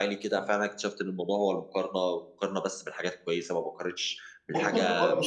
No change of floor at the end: No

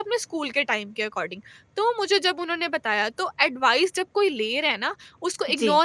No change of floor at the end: Yes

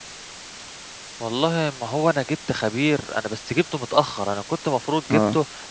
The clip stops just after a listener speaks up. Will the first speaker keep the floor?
Yes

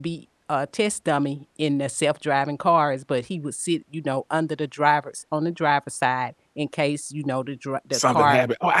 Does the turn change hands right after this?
Yes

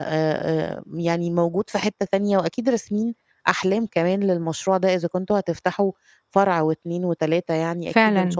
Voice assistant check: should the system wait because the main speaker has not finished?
No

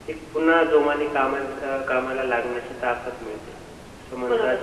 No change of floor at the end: No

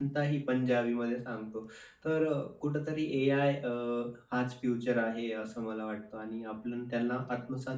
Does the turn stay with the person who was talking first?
Yes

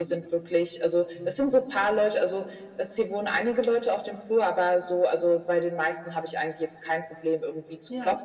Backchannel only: Yes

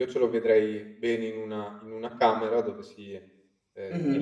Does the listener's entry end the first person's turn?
No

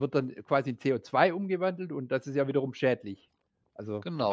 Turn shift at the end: Yes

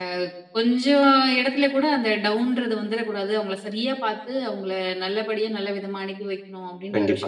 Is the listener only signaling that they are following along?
No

